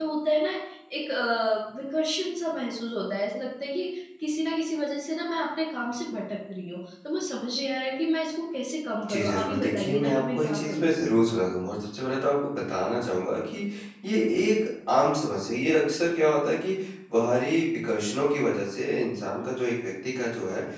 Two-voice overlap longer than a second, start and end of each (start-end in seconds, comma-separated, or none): 9.1-10.9